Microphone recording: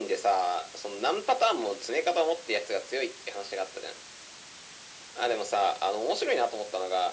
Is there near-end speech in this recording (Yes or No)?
No